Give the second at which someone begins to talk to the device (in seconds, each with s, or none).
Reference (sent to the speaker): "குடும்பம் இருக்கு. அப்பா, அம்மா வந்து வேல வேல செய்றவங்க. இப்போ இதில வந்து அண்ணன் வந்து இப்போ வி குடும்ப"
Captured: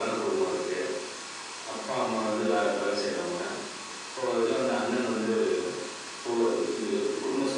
none